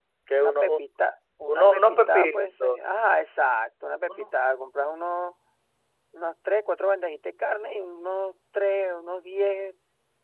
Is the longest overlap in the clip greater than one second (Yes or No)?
Yes